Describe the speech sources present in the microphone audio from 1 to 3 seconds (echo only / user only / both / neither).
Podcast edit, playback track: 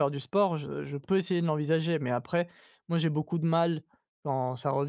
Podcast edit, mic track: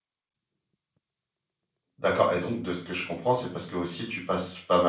user only